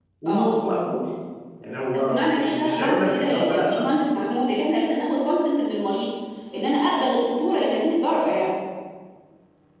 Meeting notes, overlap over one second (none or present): present